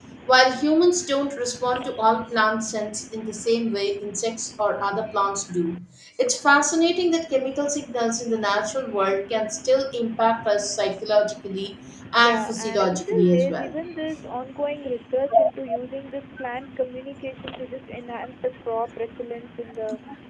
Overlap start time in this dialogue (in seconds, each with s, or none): 12.2 s